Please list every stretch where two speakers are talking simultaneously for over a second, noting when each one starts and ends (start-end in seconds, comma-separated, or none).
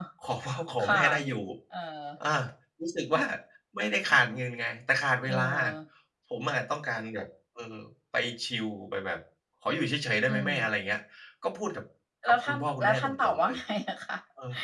12.2-13.6